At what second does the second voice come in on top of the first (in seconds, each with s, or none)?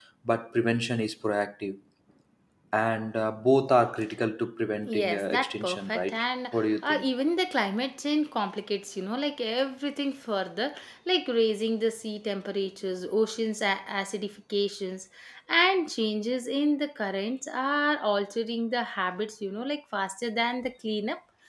4.8 s